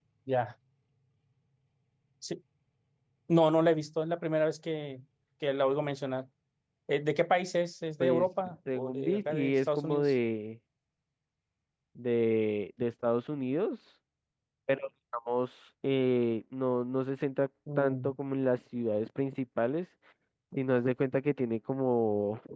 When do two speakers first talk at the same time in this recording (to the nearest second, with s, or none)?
8 s